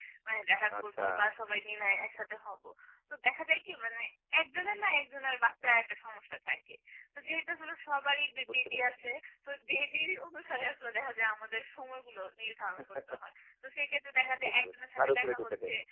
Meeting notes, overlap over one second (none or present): present